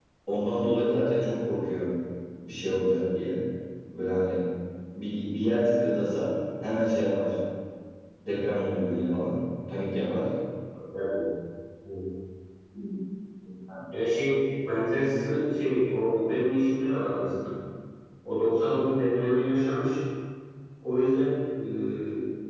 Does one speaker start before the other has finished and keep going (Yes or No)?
No